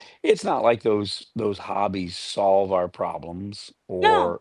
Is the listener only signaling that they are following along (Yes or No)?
Yes